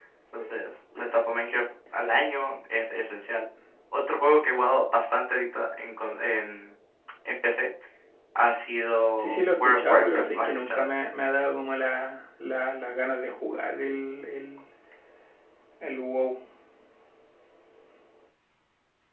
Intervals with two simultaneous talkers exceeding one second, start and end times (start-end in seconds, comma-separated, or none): 9.2-10.8